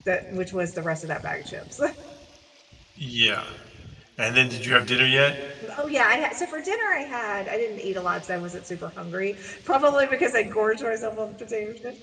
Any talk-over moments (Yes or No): No